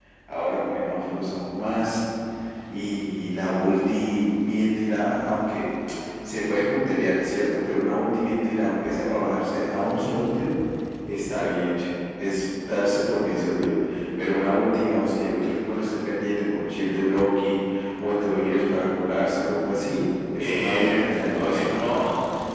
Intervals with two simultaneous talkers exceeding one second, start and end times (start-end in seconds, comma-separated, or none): 20.4-22.0